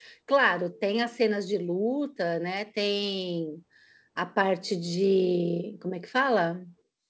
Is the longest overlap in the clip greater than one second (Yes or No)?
No